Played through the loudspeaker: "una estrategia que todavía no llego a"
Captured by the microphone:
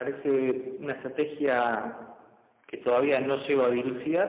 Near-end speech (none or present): none